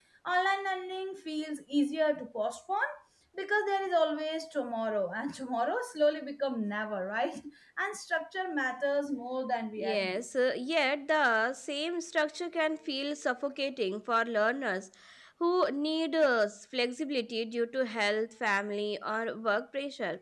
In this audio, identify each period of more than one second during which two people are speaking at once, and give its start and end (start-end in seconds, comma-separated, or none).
none